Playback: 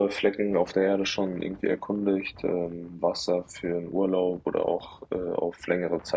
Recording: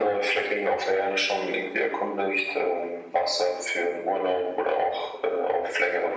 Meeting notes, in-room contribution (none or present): none